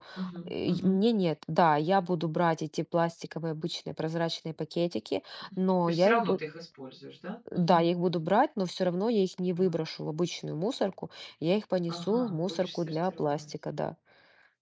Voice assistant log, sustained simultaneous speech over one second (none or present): present